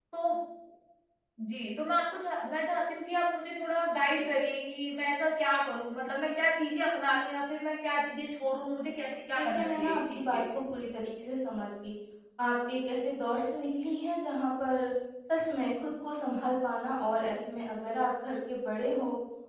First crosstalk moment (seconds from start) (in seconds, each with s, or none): 9.3 s